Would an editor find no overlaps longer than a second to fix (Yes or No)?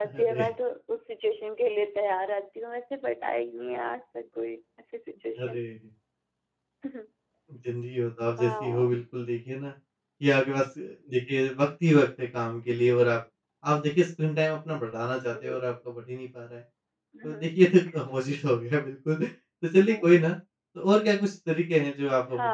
Yes